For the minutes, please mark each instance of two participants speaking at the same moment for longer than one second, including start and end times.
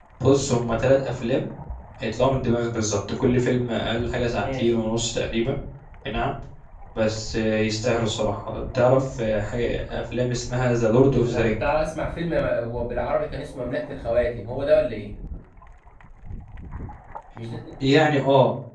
none

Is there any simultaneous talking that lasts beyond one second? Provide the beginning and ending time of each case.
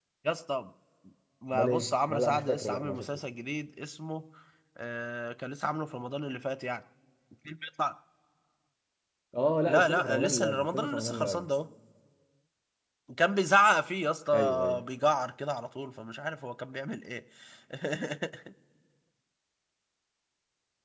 1.5-3.0, 9.7-11.5

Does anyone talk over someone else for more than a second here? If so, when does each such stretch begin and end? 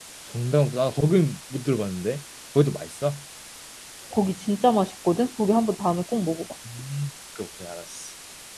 none

